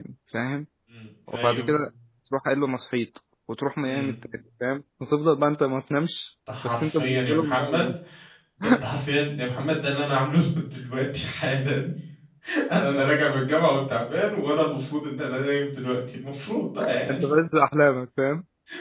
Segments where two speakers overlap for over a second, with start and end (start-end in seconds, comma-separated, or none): 6.6-7.8